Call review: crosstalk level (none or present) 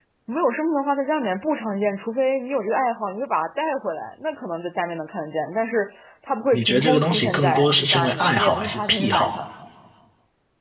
present